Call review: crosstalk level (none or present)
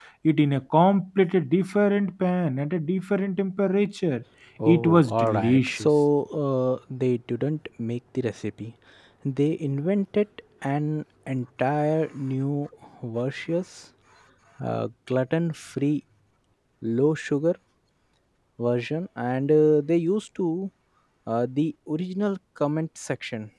present